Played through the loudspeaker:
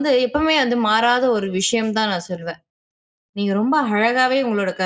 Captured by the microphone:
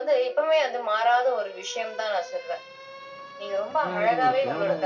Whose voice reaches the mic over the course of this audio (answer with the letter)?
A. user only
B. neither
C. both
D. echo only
C